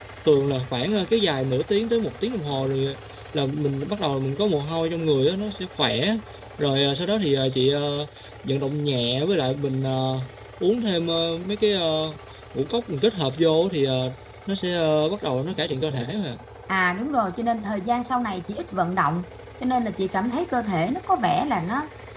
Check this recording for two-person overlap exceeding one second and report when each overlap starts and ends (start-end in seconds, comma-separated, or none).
none